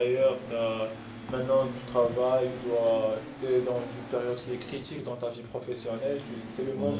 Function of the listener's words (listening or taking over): listening